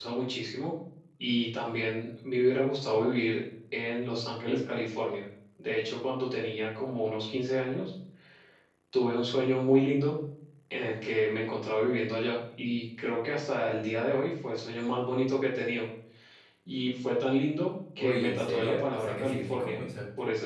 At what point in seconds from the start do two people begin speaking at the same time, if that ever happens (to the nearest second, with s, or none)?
18 s